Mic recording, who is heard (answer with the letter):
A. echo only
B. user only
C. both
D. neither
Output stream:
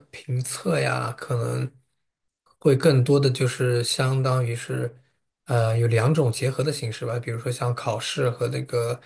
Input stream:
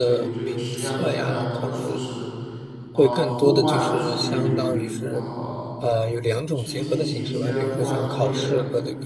C